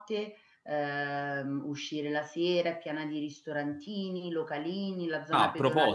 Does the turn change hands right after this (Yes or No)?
Yes